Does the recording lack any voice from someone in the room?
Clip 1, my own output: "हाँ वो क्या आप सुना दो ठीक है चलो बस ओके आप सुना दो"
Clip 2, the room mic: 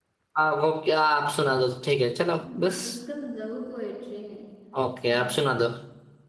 No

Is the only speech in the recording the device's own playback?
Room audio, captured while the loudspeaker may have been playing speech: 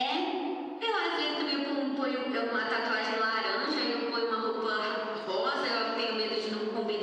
Yes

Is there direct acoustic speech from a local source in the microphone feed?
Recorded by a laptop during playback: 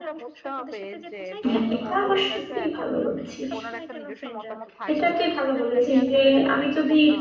Yes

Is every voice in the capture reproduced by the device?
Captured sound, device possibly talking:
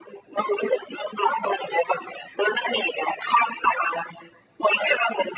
Yes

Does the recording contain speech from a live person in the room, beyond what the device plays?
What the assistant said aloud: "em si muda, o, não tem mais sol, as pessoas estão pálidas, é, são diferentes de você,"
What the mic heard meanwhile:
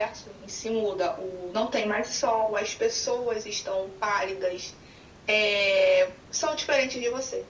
No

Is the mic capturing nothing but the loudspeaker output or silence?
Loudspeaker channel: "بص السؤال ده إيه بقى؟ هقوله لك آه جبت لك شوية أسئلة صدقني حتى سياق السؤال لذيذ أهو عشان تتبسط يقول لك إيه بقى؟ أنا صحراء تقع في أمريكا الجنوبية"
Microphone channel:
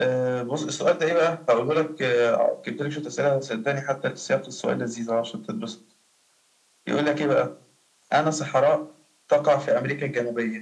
Yes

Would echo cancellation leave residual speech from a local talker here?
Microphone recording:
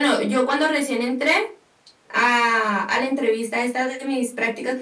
No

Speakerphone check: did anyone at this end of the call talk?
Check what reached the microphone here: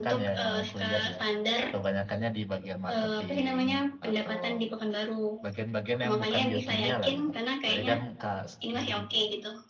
Yes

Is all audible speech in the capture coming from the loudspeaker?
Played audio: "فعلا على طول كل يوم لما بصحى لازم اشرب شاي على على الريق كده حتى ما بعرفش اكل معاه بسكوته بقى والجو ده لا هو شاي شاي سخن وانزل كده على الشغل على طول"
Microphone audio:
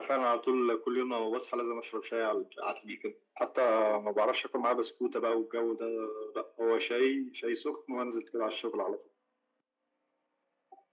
Yes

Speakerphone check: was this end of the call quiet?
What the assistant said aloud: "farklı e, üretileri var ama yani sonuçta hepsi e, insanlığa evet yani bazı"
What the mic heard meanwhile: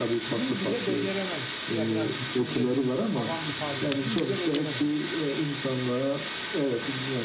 No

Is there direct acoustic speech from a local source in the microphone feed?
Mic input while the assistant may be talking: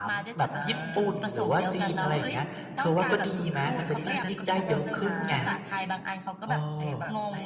Yes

